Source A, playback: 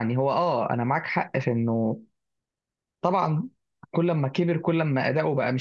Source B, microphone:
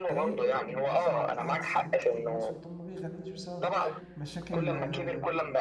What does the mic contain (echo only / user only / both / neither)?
both